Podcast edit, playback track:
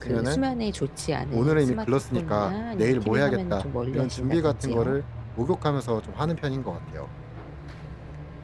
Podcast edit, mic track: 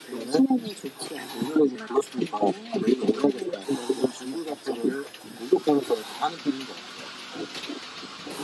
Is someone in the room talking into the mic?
No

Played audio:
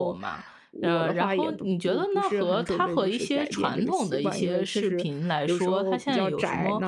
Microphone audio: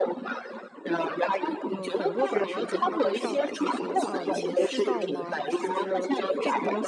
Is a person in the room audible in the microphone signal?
Yes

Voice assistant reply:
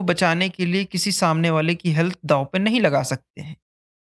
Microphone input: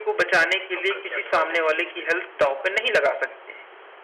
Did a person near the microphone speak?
Yes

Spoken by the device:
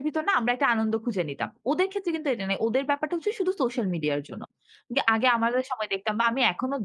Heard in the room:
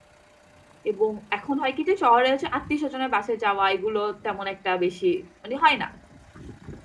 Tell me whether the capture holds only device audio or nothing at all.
No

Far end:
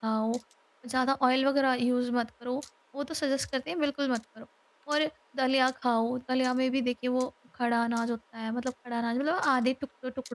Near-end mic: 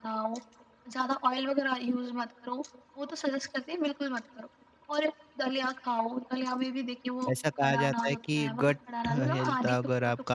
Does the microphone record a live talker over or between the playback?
Yes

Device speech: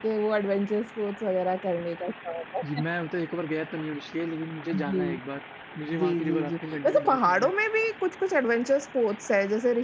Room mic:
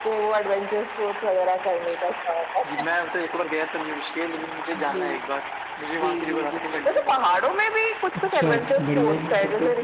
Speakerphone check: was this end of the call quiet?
No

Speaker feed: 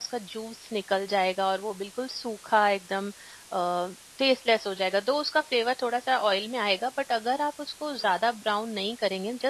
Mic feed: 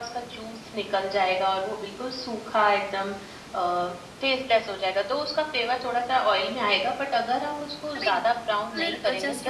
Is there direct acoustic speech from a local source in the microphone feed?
Yes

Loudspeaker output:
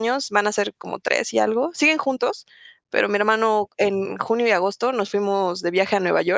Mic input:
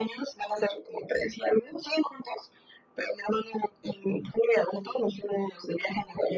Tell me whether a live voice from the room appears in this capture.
No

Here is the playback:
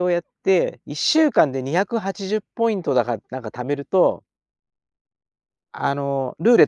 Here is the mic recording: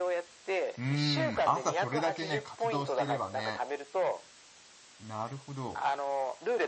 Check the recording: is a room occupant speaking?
Yes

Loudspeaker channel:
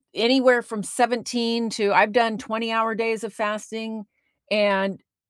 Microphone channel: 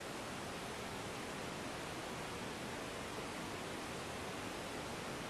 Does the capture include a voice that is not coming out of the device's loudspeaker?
No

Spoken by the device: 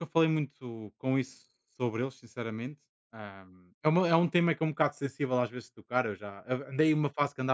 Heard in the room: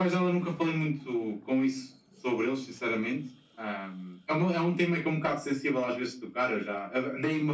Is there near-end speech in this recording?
No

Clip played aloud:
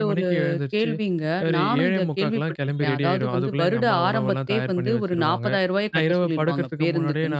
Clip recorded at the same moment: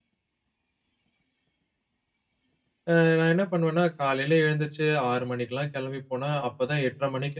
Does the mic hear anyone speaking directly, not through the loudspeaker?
Yes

